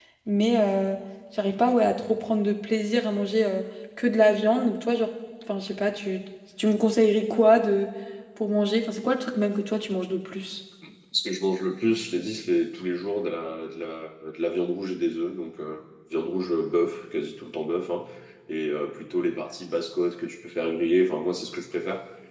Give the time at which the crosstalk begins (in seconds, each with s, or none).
none